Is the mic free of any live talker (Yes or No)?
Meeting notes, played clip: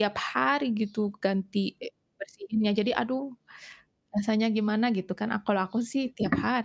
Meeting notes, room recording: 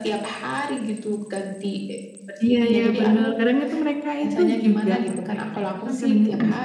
No